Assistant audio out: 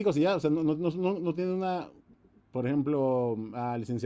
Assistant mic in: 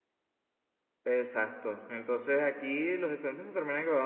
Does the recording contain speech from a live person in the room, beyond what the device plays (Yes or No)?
Yes